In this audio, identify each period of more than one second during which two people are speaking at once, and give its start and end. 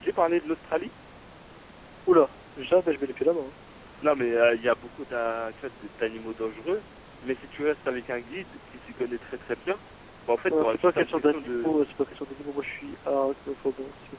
10.4-11.8

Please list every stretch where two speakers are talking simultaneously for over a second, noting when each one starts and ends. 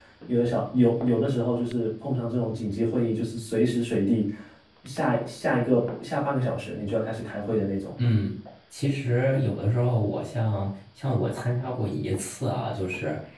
none

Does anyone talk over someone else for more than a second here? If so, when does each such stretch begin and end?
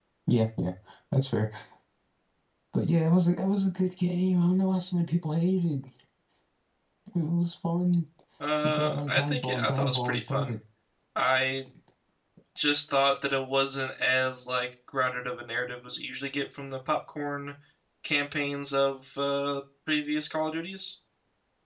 8.6-10.5

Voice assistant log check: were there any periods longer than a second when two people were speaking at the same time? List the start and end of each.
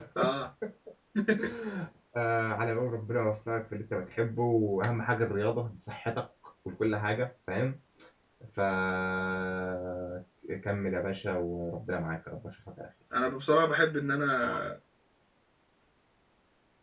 none

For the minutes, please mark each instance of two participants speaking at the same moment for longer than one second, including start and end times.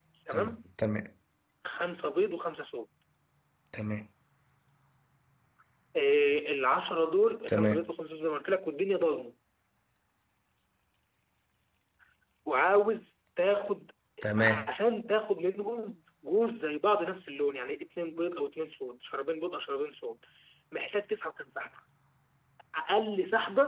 none

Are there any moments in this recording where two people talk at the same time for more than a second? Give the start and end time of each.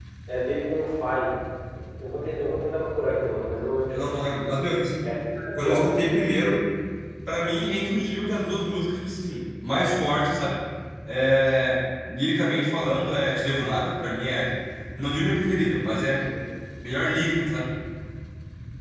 none

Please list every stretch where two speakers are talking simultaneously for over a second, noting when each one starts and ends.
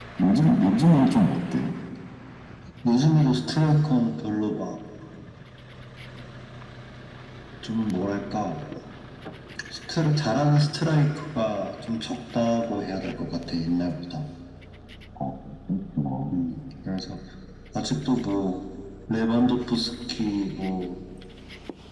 none

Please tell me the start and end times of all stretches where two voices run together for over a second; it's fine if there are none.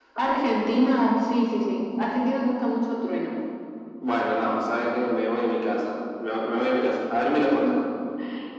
none

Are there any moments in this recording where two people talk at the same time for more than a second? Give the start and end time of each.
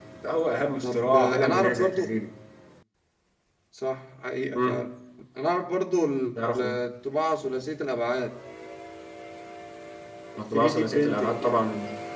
0.8-2.0, 10.4-11.6

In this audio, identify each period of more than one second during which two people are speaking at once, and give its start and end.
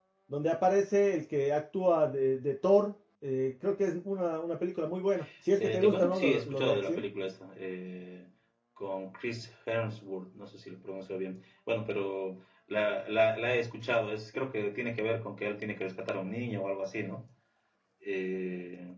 5.6-7.0

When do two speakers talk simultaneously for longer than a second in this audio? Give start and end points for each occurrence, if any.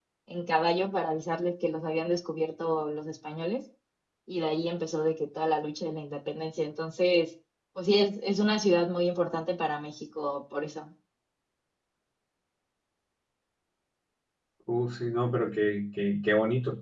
none

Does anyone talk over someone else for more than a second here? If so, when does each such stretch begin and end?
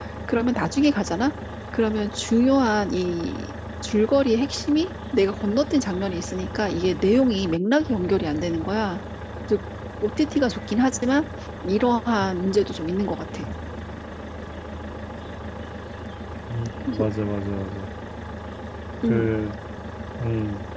none

